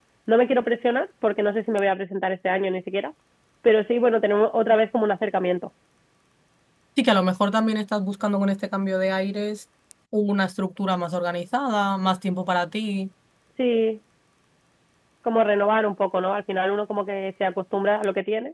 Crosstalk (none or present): none